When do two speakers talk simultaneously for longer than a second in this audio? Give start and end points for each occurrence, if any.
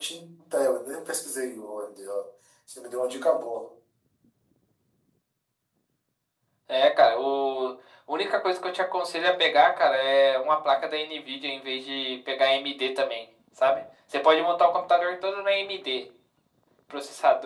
none

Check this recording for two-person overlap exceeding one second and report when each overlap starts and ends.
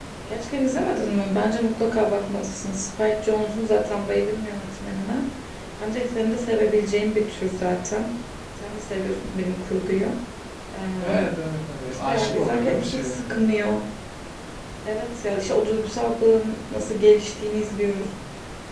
11.9-13.2

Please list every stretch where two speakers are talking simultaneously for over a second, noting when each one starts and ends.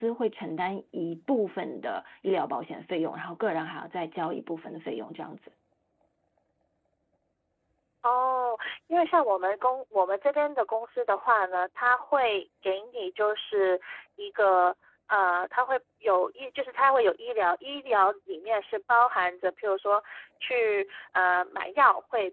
none

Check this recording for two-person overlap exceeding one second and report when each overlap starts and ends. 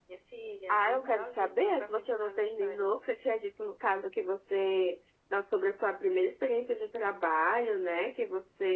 0.7-2.9

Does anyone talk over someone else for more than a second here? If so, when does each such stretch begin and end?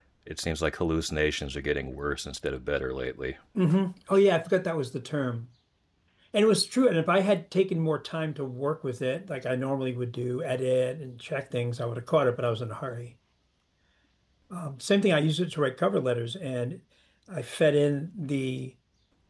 none

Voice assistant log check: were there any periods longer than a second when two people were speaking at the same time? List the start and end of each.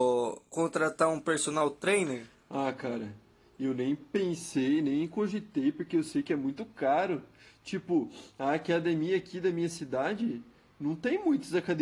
none

